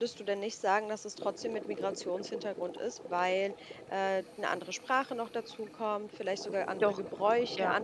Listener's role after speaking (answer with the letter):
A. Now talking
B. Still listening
B